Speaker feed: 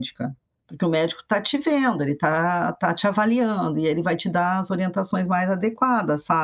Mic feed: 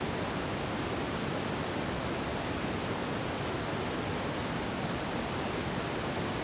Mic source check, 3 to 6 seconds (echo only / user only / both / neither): neither